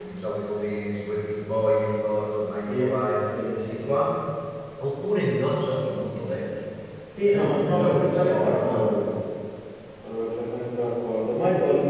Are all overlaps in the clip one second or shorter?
No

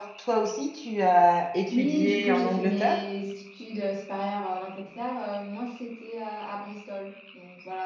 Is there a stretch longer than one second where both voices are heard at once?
Yes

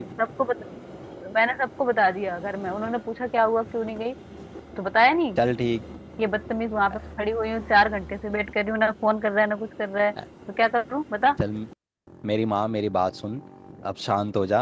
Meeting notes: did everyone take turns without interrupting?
Yes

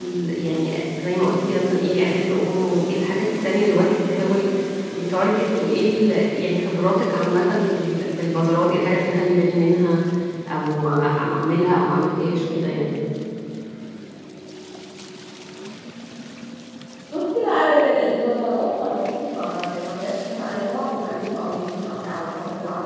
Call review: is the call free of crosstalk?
Yes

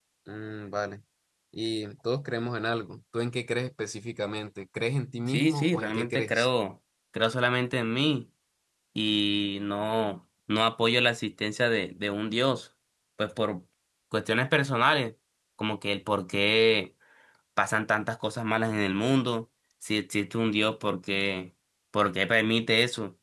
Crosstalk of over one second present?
Yes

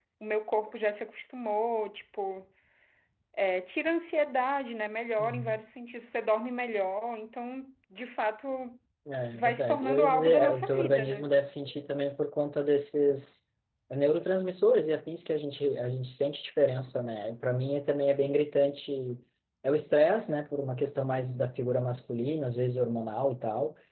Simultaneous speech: Yes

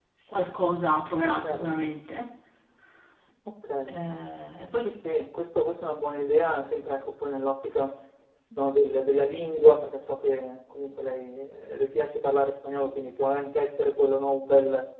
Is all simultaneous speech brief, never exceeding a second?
Yes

